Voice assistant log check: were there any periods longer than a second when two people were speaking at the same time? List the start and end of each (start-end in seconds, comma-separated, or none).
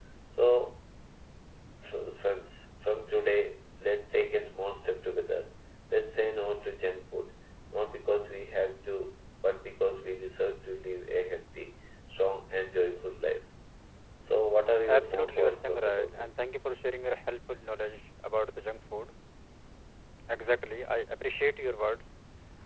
14.9-16.3